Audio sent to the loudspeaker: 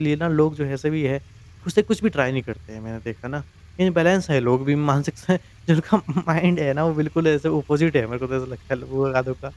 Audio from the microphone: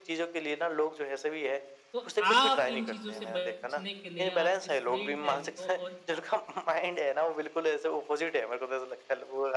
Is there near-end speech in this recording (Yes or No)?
Yes